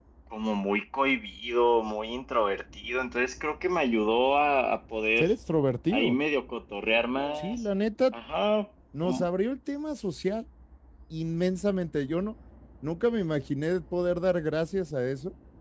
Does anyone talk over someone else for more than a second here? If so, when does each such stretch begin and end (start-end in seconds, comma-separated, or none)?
none